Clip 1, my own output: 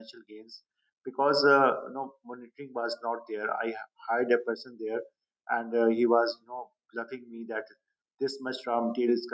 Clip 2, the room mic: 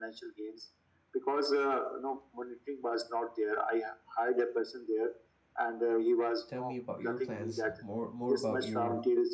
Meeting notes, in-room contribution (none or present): present